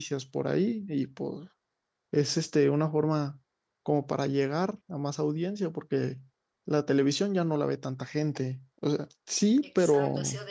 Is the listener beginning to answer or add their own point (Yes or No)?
Yes